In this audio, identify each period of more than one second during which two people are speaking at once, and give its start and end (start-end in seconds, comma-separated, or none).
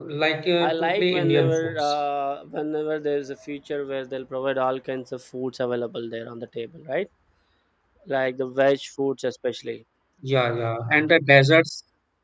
0.6-1.9